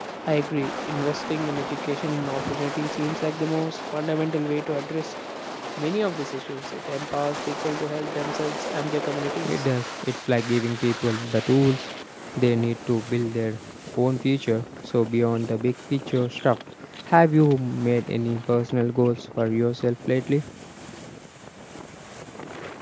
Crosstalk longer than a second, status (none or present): none